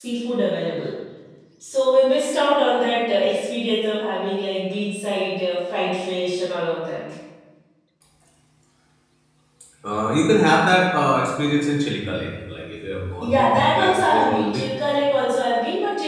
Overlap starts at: 13.2 s

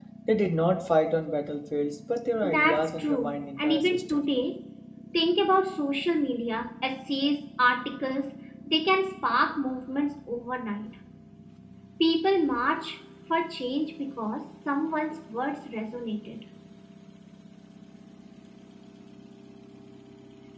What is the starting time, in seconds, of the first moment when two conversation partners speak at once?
2.4 s

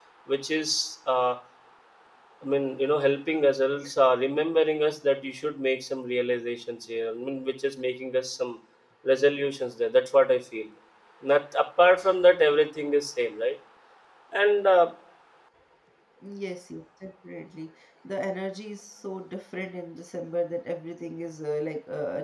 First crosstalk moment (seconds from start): none

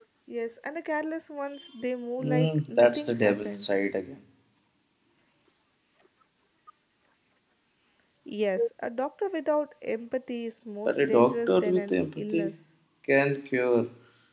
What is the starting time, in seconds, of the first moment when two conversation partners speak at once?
2.2 s

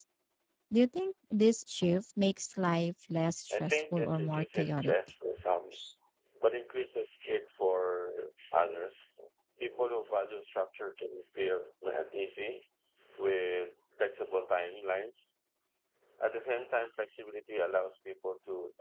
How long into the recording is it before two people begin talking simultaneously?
3.5 s

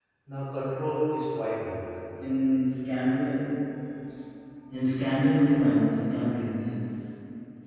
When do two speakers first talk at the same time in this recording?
none

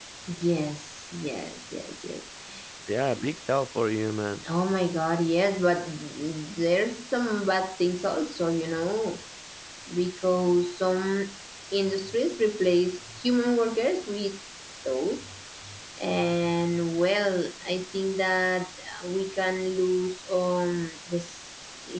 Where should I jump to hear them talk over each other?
none

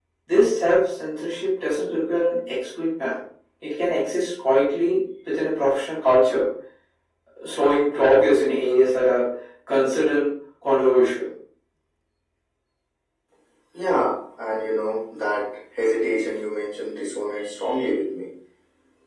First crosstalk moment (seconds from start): none

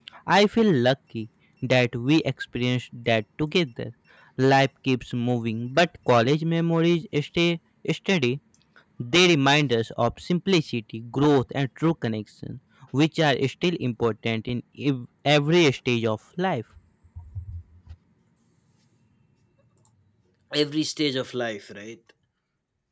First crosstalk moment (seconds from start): none

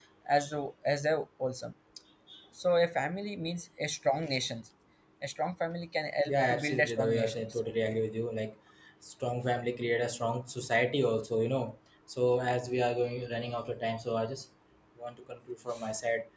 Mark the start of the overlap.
6.3 s

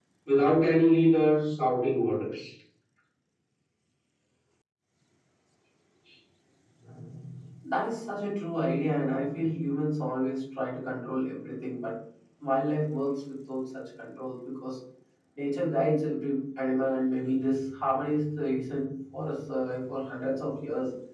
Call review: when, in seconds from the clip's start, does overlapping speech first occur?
none

